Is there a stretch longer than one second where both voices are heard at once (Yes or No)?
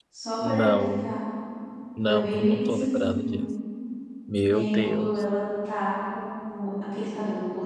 Yes